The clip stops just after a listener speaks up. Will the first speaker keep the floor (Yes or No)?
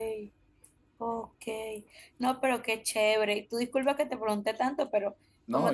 Yes